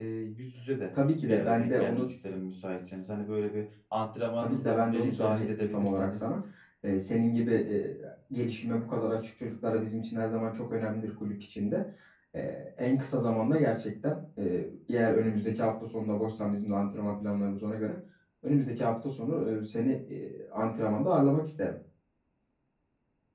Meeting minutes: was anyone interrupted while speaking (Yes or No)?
Yes